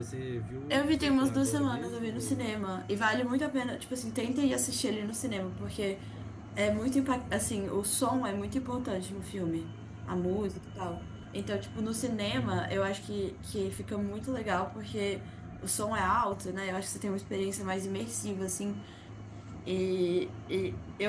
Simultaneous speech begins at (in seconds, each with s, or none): 0.7 s